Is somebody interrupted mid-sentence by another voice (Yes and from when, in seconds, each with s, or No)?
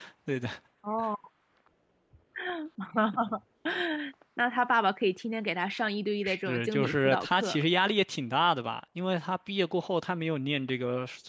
Yes, from 6.2 s